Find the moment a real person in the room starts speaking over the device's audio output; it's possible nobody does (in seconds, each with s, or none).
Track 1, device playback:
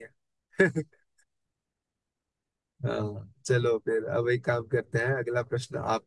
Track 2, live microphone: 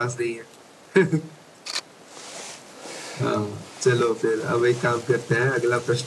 none